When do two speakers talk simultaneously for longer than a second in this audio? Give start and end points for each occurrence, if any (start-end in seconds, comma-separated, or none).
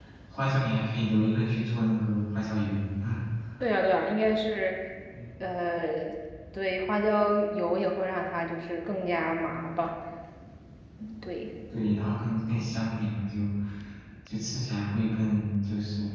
none